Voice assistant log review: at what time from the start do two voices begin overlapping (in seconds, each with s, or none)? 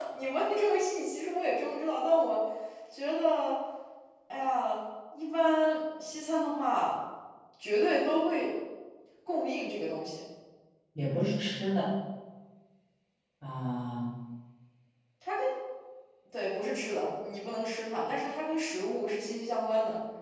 none